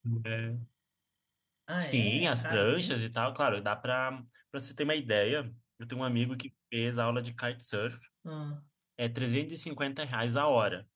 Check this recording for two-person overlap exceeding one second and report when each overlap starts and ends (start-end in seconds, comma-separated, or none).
1.8-3.0